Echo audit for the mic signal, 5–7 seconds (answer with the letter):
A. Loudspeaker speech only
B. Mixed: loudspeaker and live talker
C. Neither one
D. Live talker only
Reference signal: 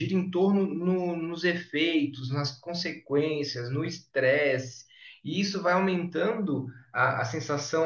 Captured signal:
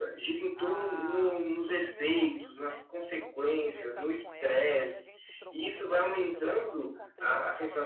B